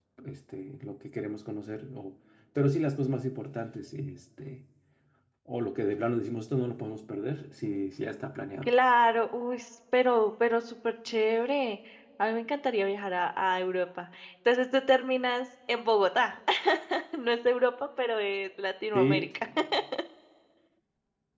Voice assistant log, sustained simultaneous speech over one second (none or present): none